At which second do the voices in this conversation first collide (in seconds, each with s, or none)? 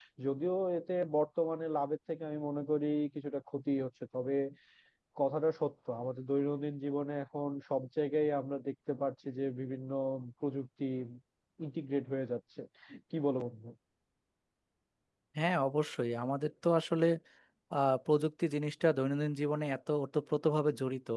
none